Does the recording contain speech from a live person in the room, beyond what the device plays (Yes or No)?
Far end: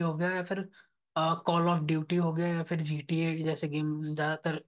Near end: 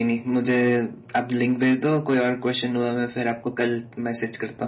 Yes